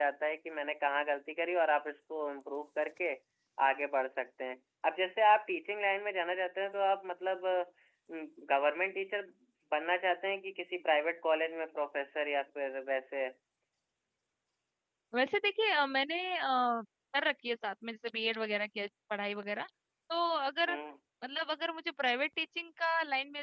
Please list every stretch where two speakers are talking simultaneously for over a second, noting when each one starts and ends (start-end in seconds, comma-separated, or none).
none